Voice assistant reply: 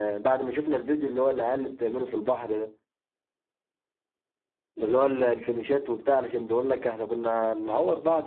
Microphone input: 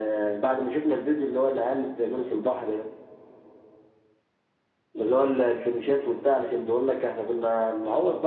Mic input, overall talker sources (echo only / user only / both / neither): echo only